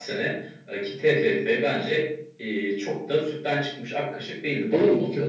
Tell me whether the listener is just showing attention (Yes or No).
No